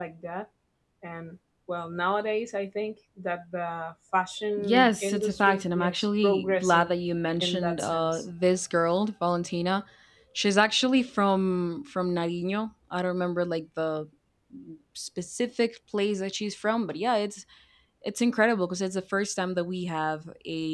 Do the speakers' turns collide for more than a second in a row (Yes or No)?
Yes